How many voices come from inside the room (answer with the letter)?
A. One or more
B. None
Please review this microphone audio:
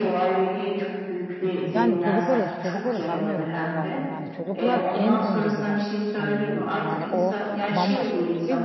A